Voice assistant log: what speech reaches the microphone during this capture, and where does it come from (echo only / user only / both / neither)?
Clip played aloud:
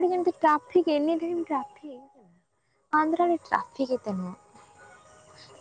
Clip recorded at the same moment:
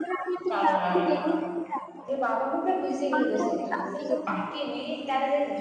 both